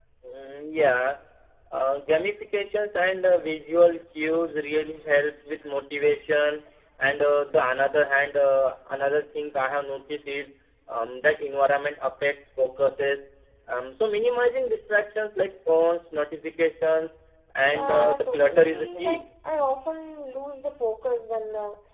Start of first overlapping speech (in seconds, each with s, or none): 17.7 s